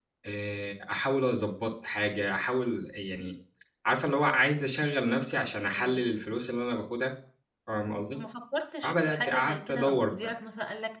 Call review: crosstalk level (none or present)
present